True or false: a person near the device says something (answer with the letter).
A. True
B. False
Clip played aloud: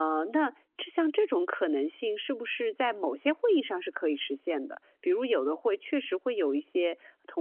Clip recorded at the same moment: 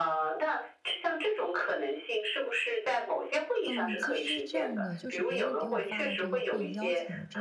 A